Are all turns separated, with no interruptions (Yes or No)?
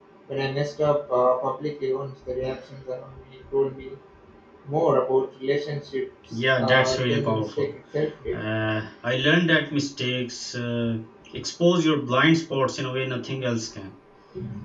No